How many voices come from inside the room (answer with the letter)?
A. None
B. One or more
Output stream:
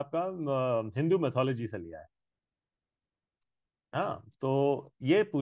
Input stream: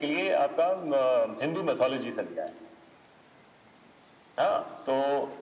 A